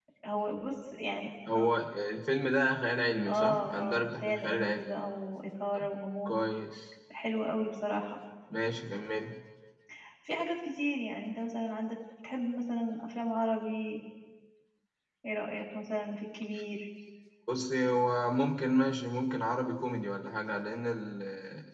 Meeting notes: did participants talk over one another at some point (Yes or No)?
Yes